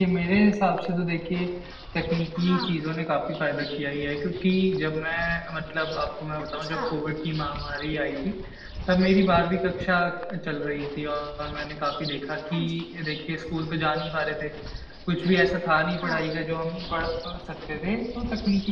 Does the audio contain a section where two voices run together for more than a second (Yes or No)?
No